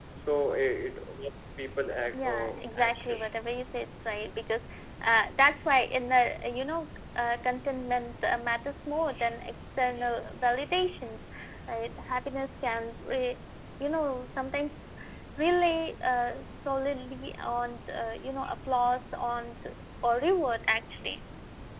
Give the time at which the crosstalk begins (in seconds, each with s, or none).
2.1 s